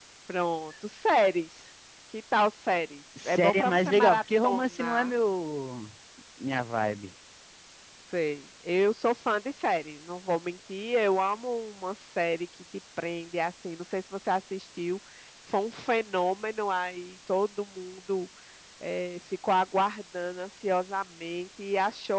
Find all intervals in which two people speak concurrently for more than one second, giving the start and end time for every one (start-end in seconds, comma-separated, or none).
3.2-5.1